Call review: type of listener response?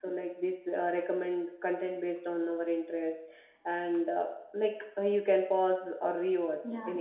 taking over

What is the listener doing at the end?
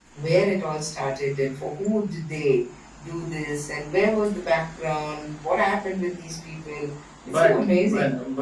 taking over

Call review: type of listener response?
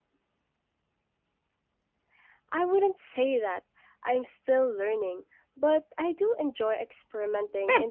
taking over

